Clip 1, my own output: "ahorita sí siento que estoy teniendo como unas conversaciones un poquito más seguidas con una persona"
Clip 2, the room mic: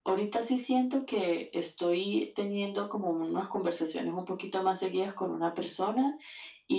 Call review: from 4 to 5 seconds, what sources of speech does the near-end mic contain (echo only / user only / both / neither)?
echo only